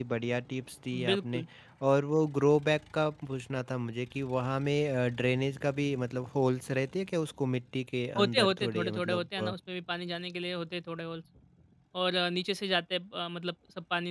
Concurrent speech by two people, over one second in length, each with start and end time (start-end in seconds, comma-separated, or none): 8.2-9.5